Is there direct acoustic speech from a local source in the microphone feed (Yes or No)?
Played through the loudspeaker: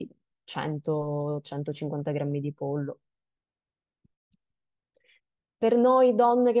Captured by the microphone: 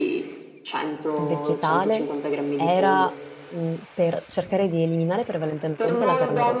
Yes